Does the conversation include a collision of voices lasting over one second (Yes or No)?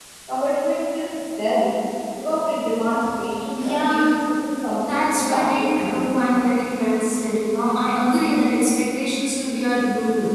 Yes